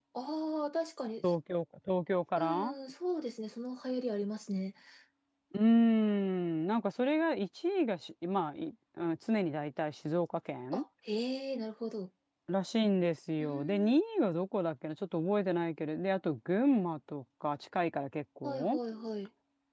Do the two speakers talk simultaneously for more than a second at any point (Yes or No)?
No